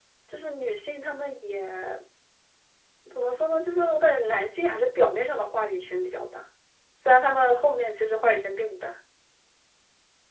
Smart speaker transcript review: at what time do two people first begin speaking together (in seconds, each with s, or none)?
none